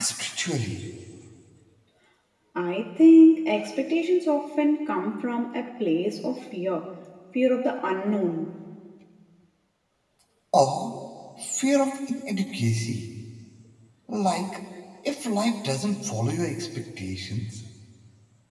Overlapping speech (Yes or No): No